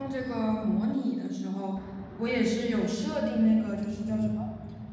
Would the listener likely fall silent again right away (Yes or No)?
Yes